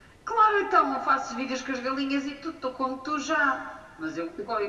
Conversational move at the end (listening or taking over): listening